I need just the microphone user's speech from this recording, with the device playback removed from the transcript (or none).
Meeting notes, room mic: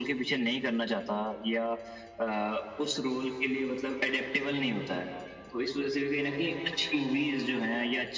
none